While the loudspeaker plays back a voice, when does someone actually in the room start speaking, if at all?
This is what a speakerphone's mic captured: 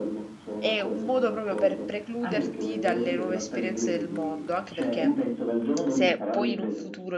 0.6 s

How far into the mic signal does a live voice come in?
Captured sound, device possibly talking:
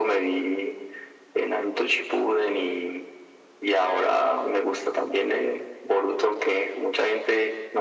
none

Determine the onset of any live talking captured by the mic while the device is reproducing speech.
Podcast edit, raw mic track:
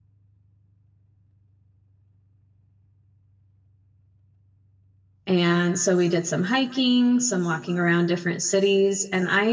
5.3 s

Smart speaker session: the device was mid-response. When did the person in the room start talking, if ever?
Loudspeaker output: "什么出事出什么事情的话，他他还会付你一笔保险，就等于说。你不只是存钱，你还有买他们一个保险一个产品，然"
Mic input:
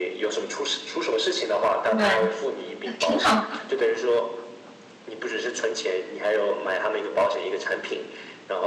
1.9 s

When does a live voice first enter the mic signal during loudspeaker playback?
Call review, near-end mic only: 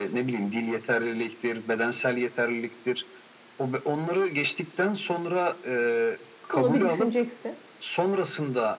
6.5 s

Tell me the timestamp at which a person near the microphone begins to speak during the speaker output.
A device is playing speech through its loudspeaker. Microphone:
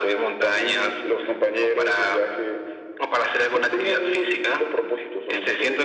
none

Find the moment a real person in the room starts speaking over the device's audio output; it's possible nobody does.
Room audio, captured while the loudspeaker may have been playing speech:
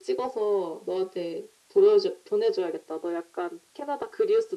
none

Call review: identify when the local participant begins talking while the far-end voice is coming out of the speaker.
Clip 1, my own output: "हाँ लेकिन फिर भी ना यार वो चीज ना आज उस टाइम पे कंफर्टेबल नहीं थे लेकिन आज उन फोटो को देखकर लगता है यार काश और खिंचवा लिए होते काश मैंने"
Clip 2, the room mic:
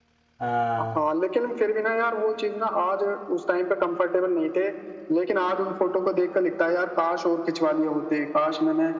0.4 s

